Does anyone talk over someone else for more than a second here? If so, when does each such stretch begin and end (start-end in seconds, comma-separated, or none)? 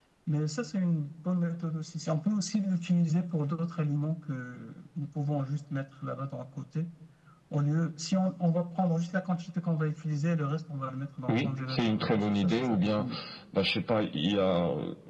11.3-13.1